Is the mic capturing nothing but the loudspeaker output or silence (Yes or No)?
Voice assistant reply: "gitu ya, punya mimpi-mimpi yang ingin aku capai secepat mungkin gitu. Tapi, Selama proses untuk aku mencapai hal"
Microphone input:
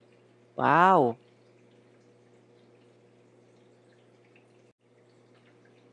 No